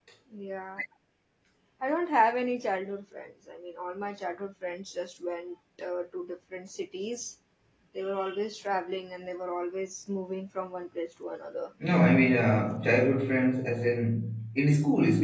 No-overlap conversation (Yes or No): Yes